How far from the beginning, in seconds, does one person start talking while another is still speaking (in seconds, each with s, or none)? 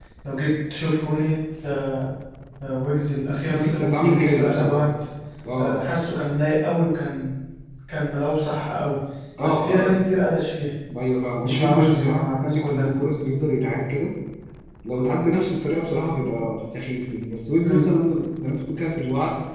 3.5 s